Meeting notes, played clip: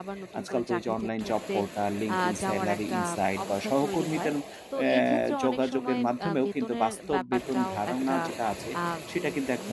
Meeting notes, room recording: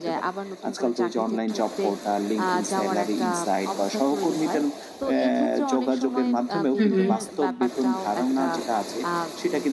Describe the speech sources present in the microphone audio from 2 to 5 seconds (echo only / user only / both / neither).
echo only